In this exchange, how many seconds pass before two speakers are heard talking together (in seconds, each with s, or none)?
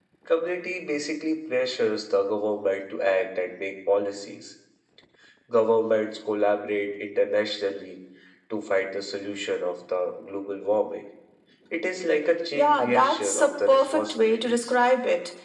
12.5 s